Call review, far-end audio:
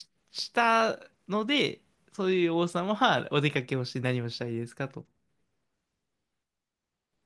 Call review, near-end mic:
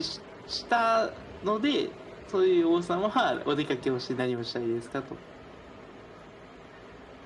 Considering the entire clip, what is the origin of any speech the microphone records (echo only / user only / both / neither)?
echo only